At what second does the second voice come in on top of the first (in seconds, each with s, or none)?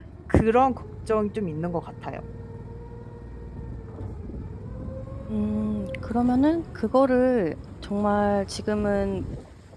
none